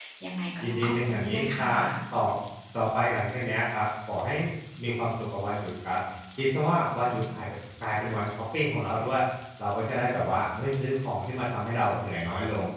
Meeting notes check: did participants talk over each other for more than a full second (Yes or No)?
Yes